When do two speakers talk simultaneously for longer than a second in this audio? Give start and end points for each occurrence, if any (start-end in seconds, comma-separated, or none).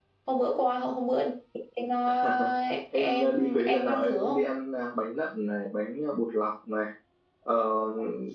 2.9-4.5